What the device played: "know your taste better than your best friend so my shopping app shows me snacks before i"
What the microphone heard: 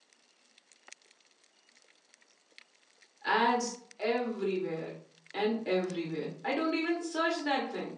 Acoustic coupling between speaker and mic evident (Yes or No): No